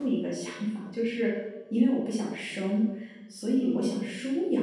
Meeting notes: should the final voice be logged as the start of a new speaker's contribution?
No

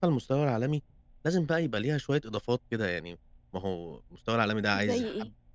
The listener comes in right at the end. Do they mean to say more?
No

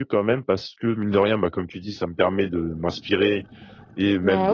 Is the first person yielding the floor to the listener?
No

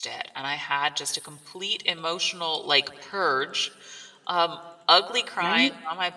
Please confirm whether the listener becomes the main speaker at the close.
No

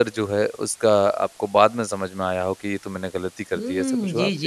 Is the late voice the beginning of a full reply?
Yes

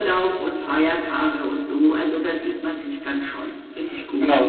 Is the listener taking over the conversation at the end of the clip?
Yes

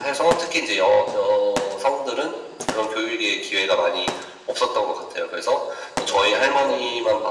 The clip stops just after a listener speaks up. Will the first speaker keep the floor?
Yes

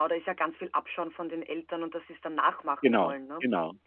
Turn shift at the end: Yes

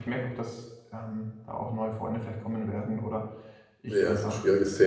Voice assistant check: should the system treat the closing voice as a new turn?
Yes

